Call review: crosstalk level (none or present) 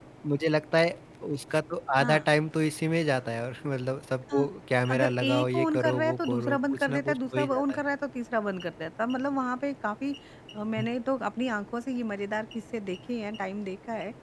present